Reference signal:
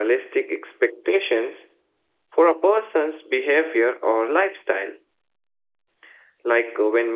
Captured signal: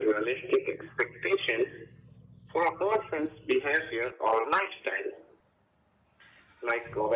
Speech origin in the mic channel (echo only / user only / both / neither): echo only